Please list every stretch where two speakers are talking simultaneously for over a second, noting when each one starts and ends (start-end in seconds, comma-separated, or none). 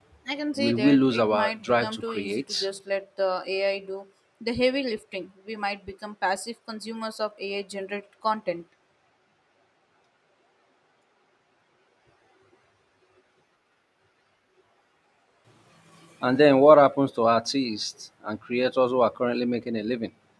0.6-2.7